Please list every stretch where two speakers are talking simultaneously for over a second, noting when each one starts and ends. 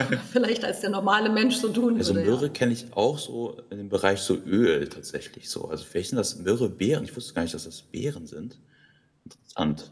none

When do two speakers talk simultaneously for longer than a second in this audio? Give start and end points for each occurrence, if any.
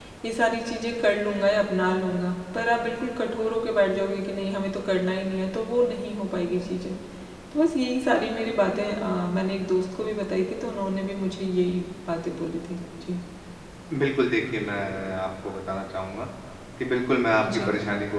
none

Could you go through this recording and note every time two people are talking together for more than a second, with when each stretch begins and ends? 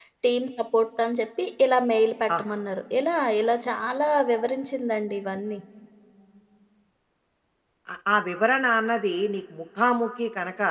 none

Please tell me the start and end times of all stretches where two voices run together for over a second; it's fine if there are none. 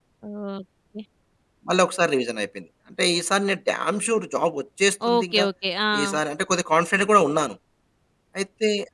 none

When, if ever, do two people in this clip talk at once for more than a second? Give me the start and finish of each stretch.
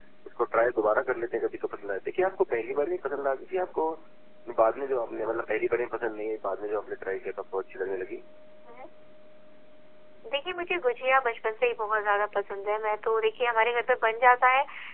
none

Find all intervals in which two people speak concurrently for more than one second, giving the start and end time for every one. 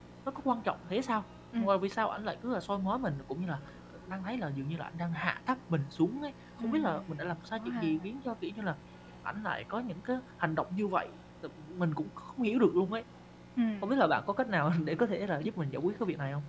6.6-7.9

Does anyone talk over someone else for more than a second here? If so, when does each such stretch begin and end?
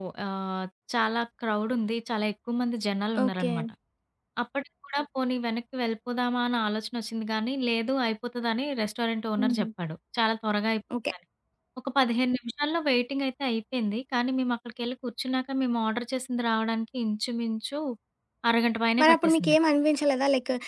none

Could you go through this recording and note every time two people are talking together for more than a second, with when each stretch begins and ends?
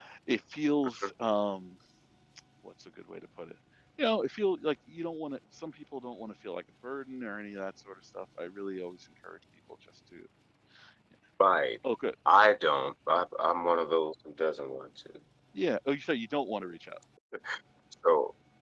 none

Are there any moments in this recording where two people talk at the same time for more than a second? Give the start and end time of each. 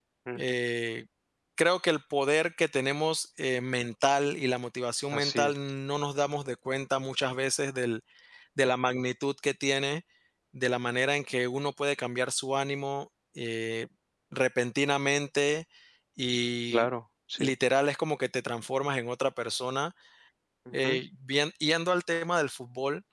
none

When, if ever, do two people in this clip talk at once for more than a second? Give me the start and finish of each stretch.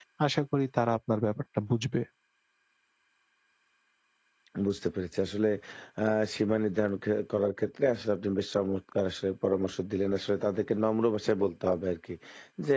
none

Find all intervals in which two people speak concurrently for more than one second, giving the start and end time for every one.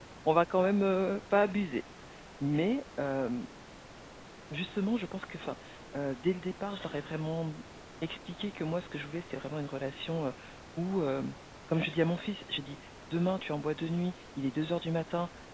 none

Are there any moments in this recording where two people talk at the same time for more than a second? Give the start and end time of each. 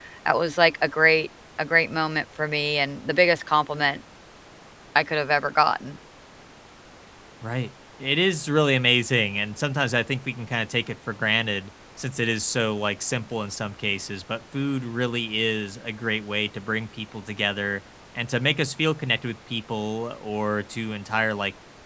none

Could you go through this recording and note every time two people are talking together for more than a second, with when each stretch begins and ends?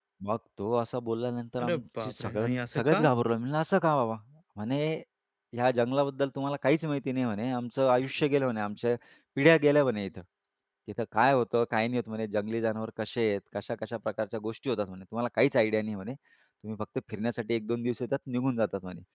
1.6-3.0

